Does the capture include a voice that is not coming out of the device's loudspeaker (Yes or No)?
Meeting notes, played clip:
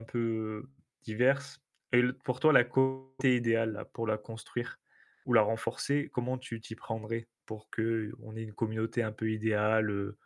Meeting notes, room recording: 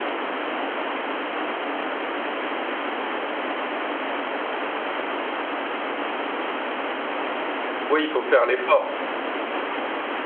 Yes